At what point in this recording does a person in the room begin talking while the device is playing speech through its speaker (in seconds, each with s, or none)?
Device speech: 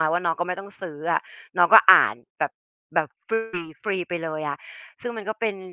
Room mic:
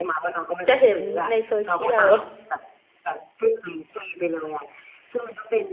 0.7 s